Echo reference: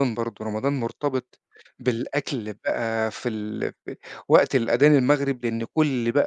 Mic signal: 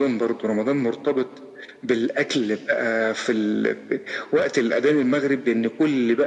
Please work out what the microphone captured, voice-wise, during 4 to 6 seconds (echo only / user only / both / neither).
echo only